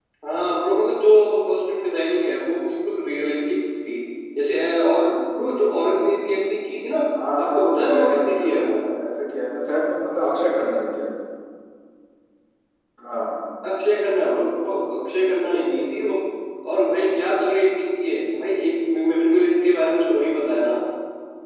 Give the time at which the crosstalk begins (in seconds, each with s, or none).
7.4 s